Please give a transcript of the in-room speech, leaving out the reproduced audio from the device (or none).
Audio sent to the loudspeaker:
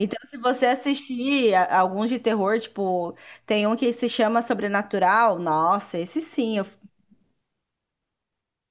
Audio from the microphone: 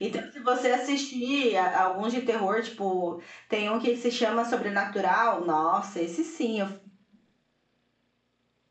none